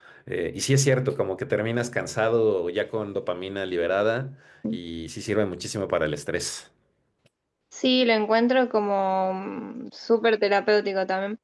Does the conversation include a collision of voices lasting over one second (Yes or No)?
No